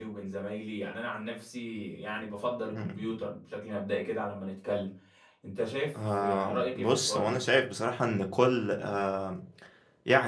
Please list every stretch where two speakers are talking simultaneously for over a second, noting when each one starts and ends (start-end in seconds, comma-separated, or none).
6.0-7.4